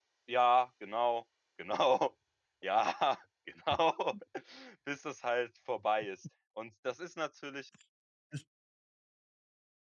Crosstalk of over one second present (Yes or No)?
No